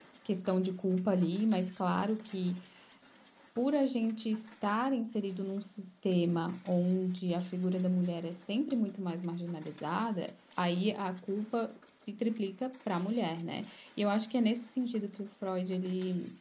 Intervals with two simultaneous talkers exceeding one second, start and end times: none

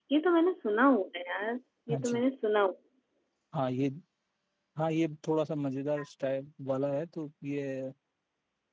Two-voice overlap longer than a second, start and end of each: none

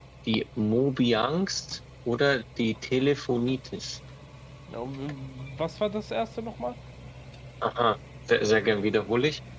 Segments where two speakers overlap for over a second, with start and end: none

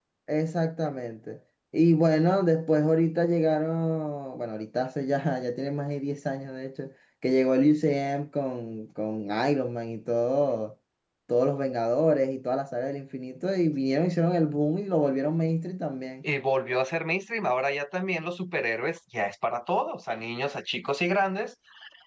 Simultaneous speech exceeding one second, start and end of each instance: none

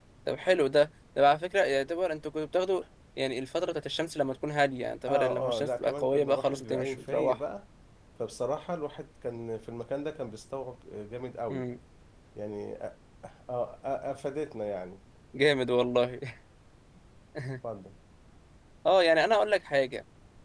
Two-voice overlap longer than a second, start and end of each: 5.1-7.4

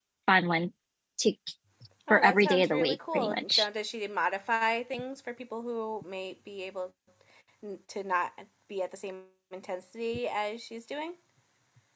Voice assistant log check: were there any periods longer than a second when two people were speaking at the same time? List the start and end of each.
2.1-3.7

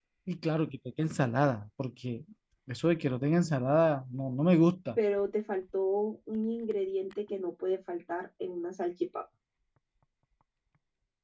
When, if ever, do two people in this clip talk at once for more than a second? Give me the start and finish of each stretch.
none

